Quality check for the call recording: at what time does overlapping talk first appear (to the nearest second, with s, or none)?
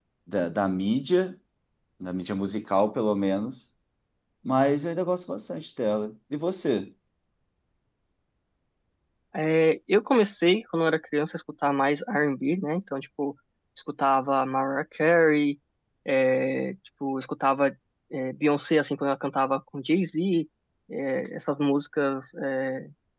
none